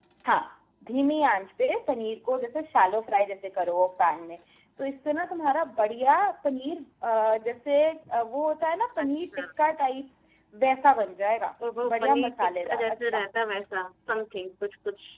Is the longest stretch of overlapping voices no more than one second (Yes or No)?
No